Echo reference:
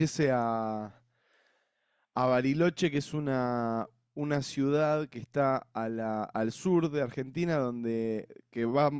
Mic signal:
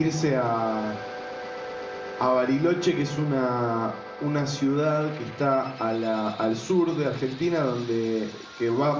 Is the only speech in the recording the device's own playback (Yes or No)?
Yes